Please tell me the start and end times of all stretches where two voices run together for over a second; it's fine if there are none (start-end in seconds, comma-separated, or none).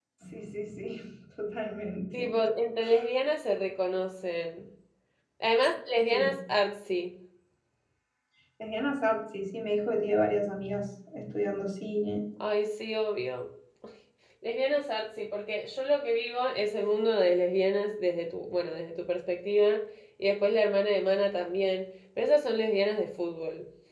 none